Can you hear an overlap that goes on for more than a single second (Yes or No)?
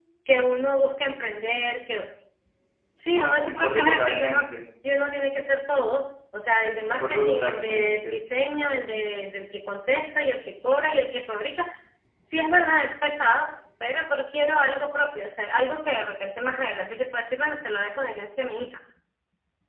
Yes